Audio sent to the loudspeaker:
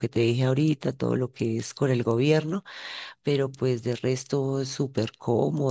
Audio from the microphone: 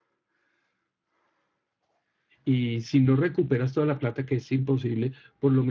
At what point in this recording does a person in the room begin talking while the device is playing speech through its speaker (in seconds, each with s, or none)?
2.4 s